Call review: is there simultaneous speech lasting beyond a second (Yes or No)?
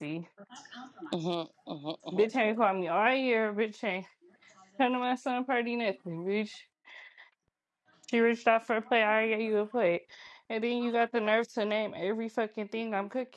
No